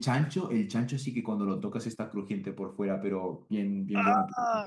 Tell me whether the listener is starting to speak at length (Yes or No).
No